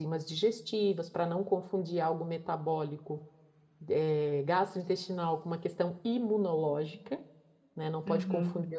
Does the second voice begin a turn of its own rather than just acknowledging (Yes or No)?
No